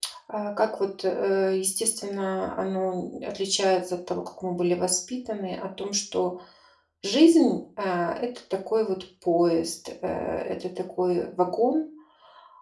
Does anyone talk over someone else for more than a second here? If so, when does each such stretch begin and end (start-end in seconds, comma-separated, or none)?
none